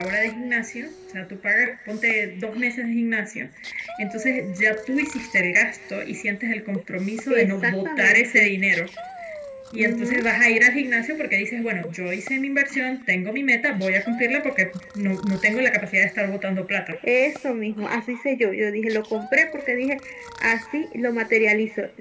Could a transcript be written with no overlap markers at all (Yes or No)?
No